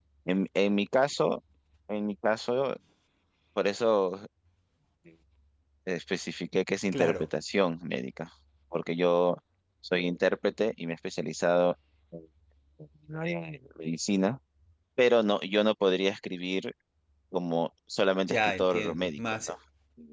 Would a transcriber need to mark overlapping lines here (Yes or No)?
Yes